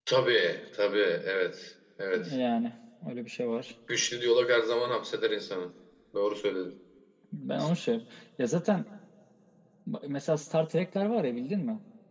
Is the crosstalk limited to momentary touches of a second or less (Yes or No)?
Yes